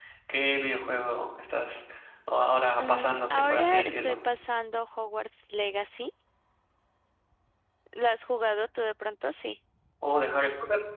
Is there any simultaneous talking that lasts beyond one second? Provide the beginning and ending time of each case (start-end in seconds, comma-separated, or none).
2.8-4.2